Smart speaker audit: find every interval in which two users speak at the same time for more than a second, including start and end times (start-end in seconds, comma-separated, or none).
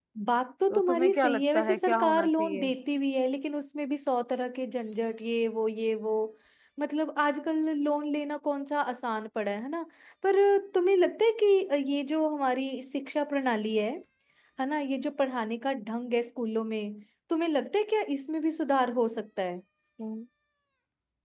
0.7-2.7